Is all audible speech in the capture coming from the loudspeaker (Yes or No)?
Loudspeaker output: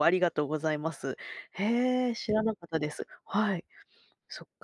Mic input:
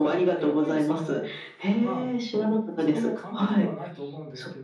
No